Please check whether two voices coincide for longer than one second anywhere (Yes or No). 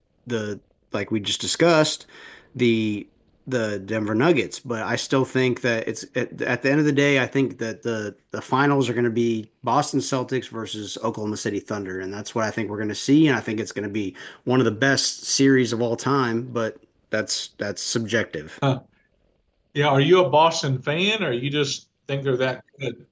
No